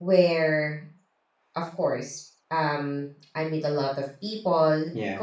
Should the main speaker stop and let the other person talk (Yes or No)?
No